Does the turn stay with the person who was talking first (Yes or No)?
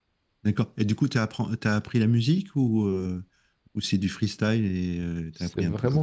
No